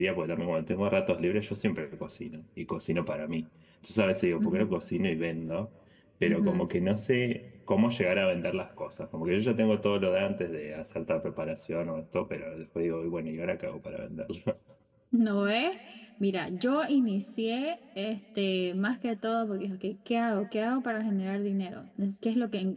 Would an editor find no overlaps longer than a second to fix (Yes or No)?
Yes